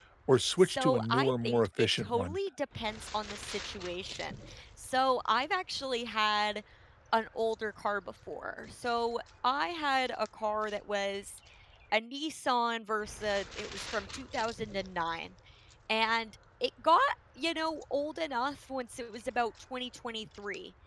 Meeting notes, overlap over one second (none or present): present